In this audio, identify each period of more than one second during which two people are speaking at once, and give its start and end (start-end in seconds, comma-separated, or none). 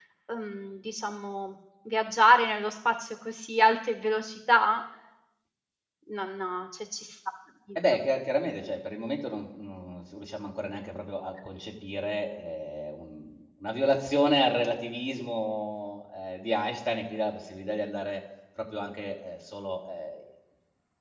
none